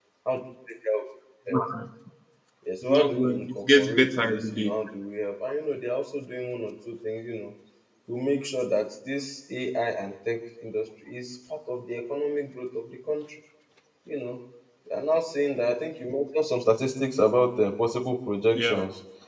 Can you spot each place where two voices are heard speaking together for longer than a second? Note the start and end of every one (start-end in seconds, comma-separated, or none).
2.8-4.8